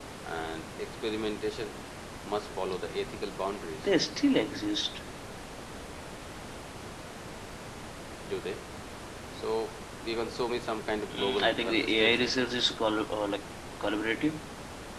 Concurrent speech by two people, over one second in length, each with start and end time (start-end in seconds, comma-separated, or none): 11.1-12.3